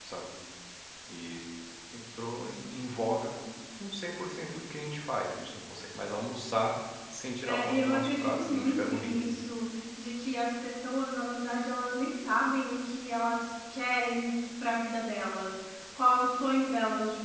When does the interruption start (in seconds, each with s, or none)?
7.4 s